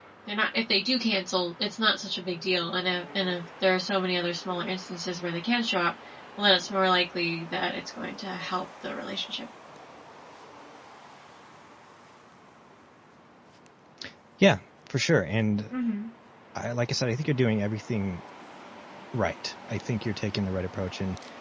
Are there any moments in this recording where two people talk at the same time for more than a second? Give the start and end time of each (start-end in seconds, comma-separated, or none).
none